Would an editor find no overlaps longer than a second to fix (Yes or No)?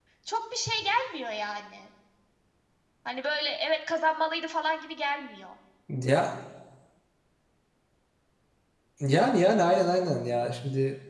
Yes